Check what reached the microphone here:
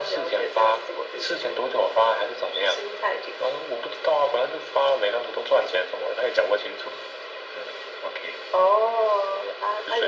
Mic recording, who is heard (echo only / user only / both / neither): echo only